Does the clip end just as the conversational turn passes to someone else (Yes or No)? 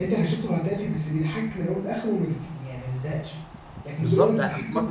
Yes